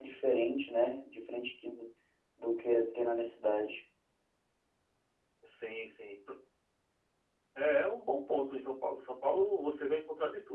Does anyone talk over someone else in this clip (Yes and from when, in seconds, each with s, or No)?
No